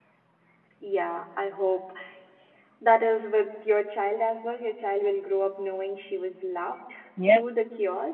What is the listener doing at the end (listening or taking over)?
taking over